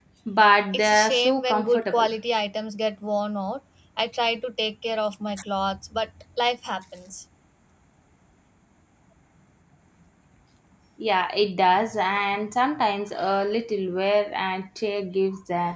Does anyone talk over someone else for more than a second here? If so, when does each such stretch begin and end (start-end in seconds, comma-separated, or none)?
0.7-2.1